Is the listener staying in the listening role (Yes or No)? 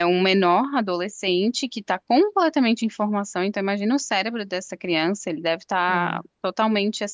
Yes